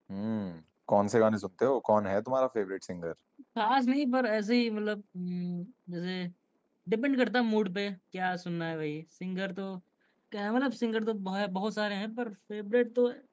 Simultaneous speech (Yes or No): No